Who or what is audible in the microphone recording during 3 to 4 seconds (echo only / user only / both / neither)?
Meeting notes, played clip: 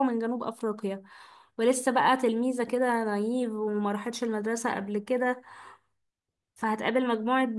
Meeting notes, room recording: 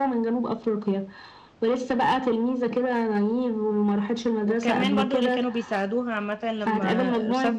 echo only